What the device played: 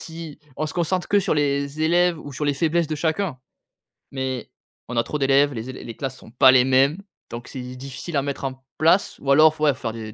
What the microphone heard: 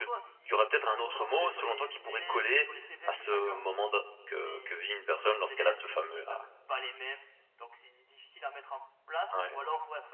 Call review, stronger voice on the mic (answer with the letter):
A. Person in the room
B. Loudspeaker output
A